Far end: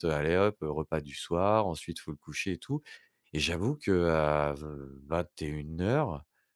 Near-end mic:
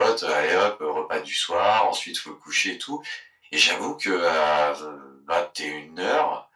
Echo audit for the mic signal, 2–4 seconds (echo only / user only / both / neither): echo only